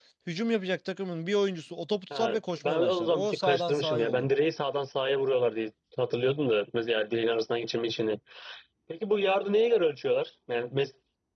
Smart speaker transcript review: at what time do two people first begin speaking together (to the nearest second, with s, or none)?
2 s